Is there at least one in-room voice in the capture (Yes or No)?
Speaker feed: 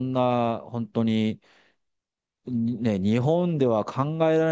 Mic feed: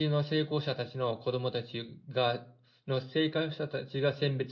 Yes